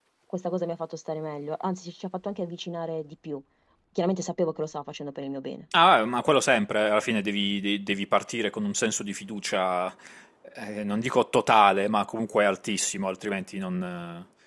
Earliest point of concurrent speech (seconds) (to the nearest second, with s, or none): none